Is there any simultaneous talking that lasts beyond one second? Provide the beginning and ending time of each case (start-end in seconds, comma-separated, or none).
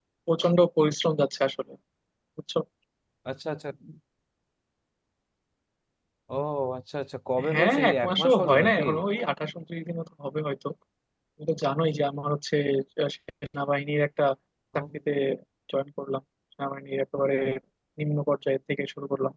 7.5-8.8